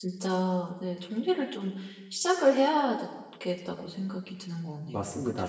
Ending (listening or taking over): taking over